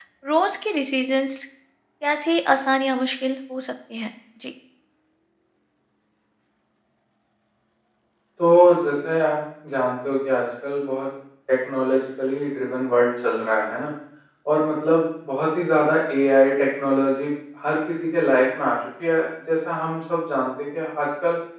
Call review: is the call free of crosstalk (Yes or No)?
Yes